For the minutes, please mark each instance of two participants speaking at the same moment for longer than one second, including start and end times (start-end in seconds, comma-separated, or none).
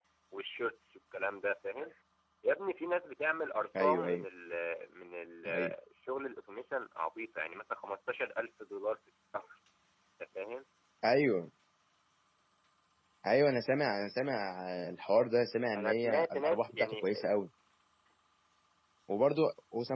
15.7-17.1